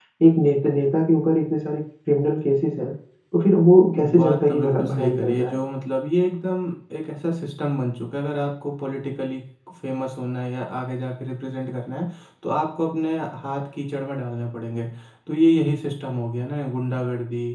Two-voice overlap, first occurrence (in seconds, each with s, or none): 4.0 s